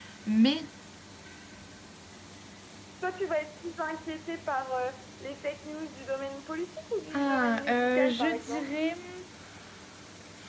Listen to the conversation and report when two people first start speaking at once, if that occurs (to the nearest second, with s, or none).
7 s